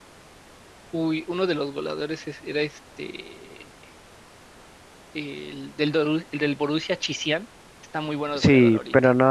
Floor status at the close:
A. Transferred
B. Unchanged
A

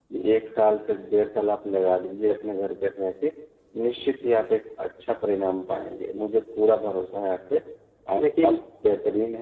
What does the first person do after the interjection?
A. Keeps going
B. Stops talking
A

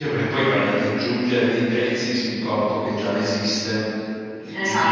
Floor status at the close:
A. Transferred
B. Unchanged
A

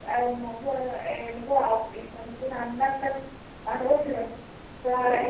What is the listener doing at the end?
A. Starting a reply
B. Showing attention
B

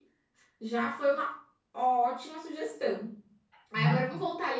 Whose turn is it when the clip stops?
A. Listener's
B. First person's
B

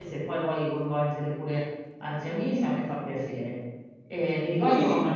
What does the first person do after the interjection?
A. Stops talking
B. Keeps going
B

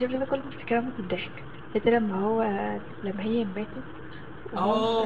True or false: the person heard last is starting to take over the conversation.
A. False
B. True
B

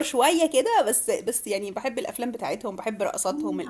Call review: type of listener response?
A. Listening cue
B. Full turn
B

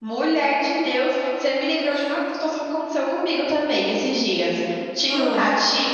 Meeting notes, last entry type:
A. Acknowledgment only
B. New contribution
A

